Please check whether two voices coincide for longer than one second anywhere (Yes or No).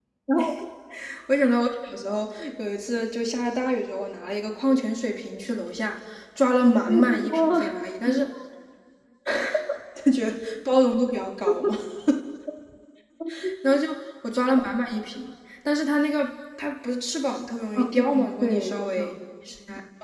Yes